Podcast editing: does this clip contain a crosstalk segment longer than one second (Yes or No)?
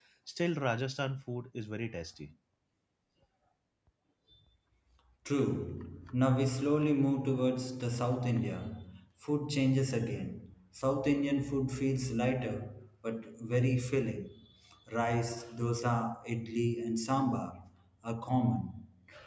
No